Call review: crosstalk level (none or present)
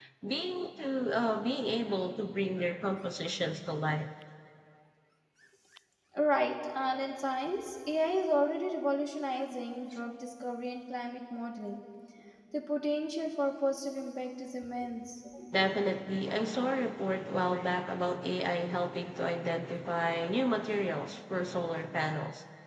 none